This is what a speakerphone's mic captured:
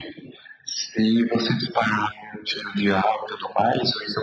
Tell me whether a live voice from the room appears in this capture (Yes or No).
No